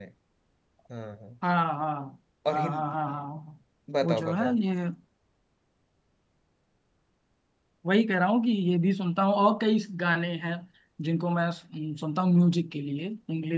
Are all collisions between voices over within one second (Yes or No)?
Yes